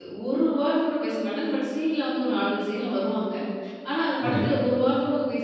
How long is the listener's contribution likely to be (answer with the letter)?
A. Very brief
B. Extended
A